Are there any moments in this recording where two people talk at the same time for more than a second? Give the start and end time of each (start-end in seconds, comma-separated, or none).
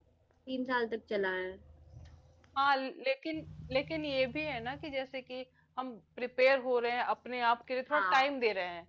none